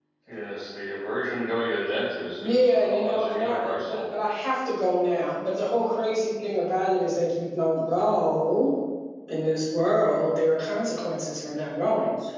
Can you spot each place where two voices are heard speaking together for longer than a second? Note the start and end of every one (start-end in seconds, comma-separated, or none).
2.4-4.0